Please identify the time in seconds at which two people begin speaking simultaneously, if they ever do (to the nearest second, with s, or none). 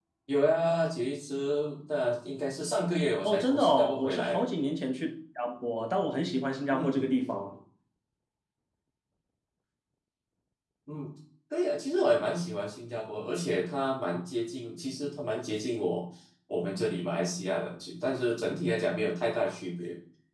3 s